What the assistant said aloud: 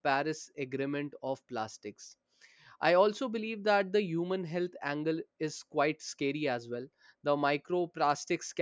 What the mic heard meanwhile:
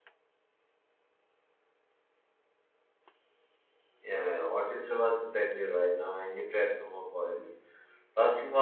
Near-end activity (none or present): present